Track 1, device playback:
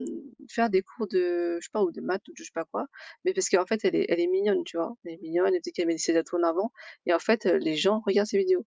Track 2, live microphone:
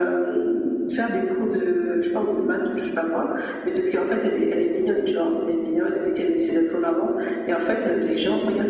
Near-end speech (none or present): none